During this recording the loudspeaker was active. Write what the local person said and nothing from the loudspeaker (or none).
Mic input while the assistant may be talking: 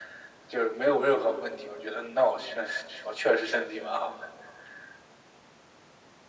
none